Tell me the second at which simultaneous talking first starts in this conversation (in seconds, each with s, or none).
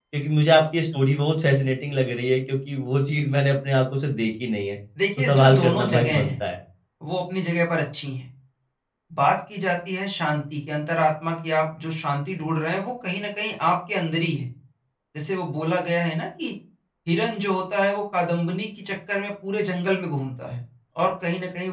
5.2 s